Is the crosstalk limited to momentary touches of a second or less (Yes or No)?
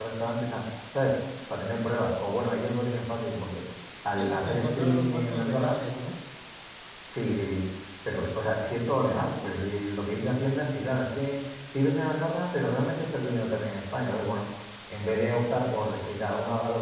No